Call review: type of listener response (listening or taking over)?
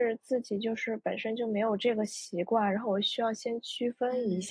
taking over